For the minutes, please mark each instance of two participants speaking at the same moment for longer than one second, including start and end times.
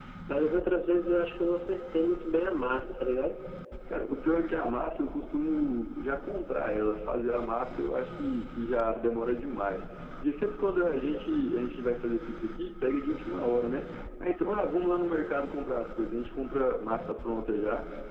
none

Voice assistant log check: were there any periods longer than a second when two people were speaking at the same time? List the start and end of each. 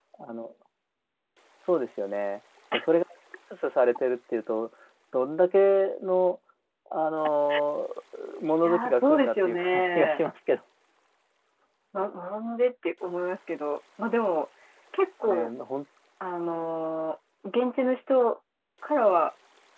8.6-10.2

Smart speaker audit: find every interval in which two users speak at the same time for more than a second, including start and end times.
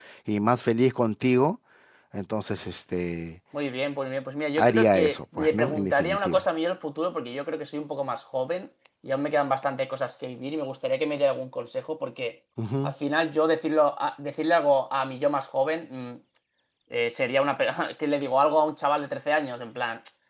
4.6-6.4

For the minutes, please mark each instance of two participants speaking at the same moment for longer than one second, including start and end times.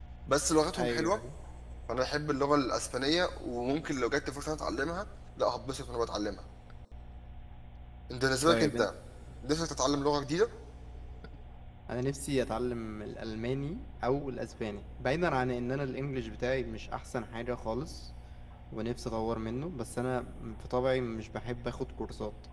none

